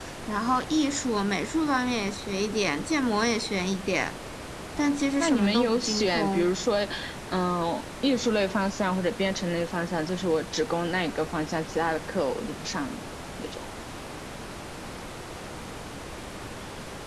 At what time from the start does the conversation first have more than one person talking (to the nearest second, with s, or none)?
5 s